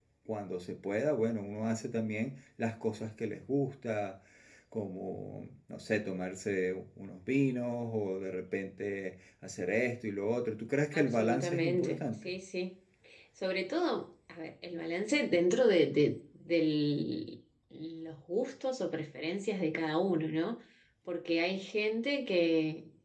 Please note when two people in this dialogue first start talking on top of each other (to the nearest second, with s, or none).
11 s